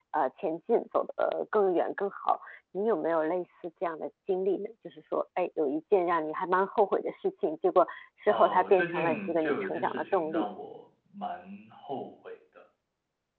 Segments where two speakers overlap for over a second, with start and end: 8.3-10.5

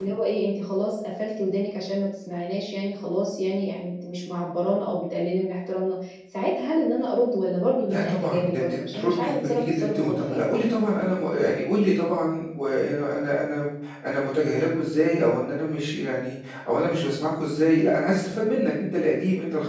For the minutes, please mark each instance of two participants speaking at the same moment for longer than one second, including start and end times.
7.9-10.5

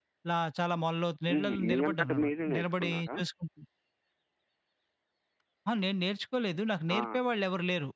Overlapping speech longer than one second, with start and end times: 1.3-3.1

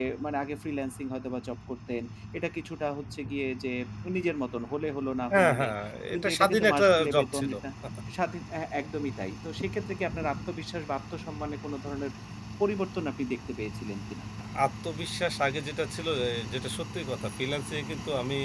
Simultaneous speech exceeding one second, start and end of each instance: 6.1-7.5

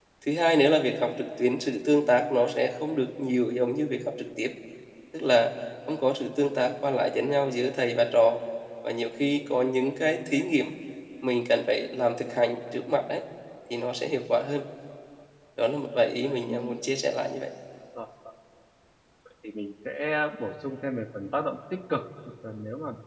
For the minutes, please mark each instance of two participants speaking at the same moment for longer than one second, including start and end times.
none

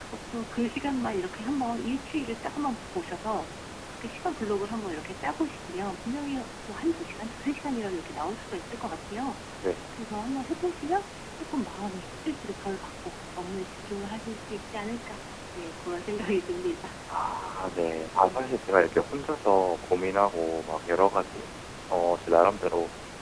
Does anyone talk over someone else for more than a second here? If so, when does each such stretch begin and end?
none

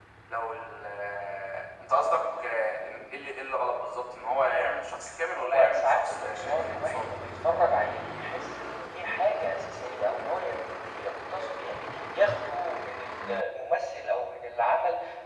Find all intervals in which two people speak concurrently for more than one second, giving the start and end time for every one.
5.4-7.1

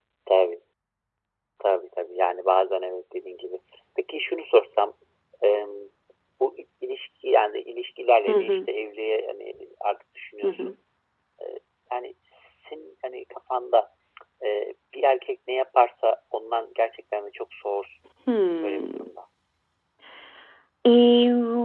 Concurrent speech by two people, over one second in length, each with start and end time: none

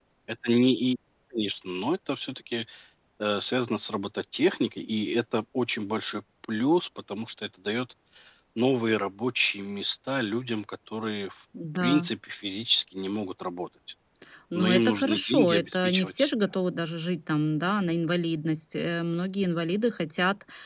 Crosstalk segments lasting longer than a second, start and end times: 14.6-16.3

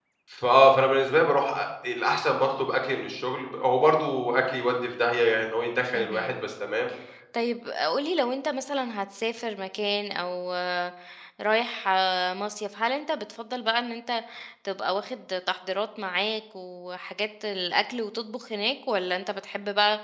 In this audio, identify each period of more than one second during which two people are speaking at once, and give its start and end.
none

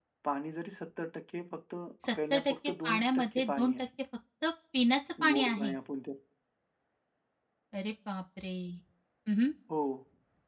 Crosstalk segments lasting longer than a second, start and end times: 2.3-3.7

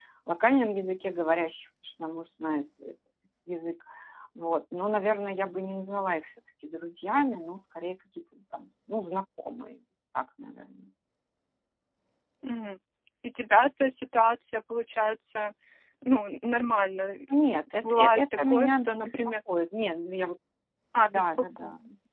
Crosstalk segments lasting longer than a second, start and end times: 17.8-19.1

